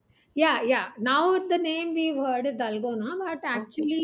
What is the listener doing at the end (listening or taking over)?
listening